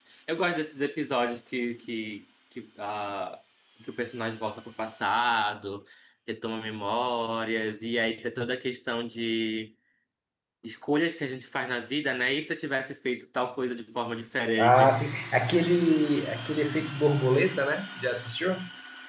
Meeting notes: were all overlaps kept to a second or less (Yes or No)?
Yes